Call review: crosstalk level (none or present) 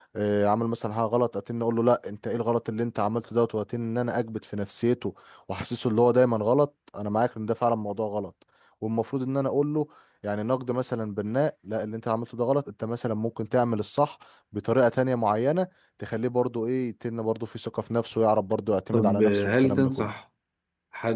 present